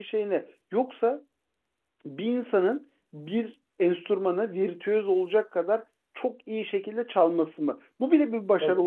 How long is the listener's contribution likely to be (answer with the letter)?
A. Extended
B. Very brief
B